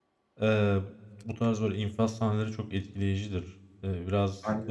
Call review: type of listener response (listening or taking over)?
listening